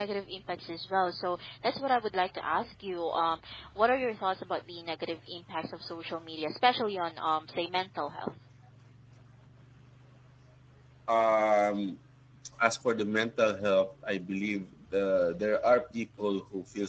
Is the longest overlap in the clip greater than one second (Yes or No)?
No